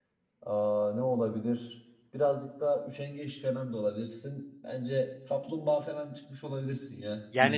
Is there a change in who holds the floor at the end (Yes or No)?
Yes